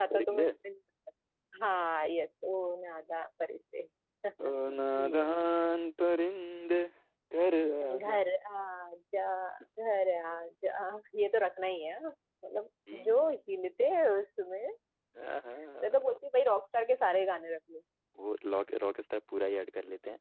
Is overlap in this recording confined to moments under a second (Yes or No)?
Yes